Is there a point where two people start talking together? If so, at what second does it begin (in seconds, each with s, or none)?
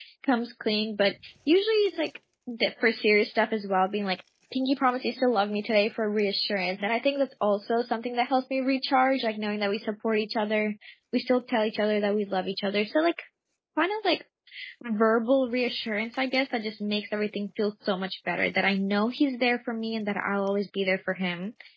none